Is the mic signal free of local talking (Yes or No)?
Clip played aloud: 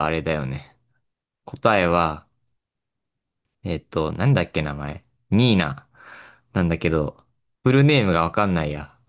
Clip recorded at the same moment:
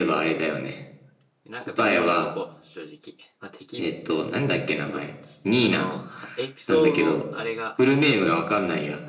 No